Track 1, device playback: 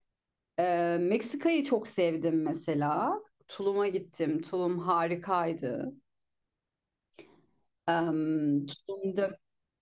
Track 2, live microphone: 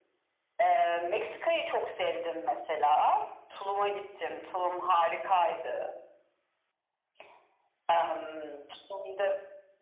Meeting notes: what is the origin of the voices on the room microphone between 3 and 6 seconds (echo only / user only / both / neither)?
echo only